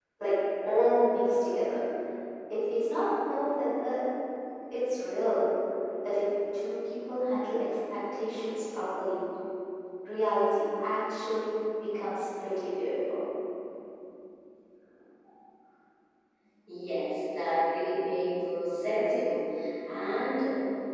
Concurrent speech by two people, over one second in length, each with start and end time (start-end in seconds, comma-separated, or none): none